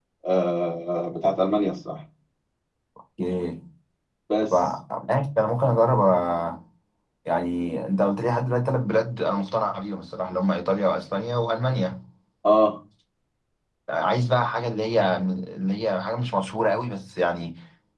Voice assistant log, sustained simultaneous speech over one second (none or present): none